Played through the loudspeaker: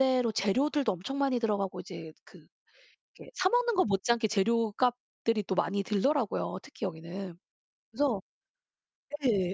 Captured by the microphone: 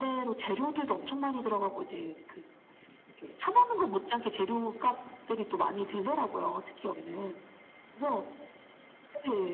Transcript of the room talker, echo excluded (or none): none